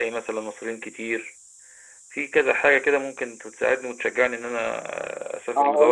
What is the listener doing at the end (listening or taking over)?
taking over